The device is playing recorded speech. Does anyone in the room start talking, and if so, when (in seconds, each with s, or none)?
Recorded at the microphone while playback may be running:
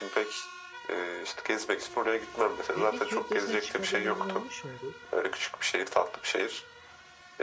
2.7 s